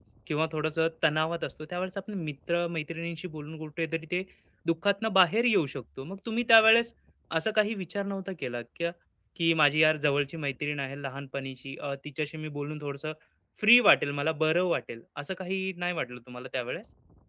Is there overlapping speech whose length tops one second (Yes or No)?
No